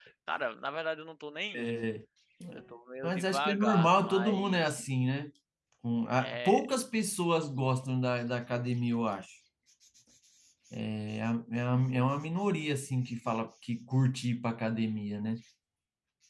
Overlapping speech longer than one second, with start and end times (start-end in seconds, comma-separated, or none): 3.0-4.8